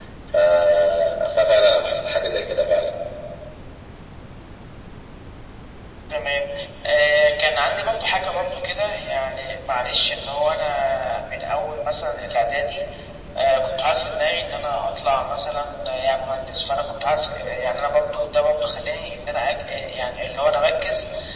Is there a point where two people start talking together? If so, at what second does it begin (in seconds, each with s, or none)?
none